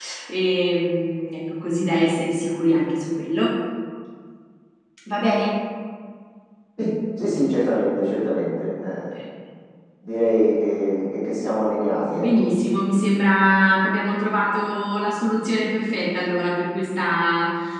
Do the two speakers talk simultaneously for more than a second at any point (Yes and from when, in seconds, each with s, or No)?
No